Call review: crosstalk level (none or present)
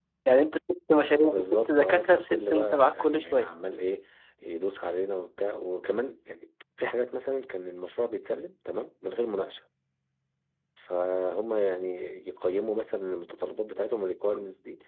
present